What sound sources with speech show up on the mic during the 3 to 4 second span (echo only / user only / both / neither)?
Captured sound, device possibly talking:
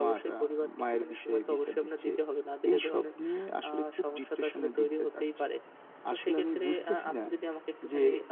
echo only